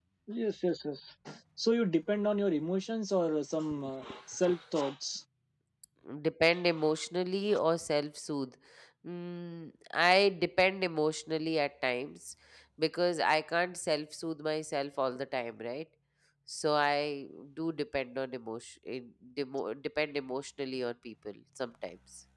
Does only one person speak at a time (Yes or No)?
Yes